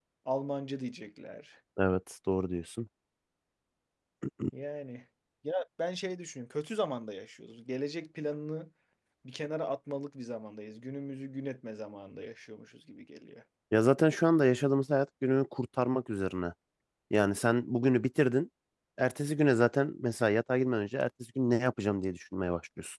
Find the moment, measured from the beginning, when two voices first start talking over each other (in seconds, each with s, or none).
none